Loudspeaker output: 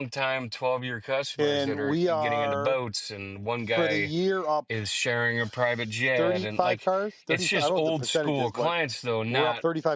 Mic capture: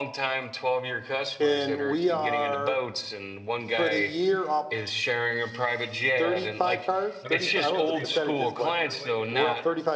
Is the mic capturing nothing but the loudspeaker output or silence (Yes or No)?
No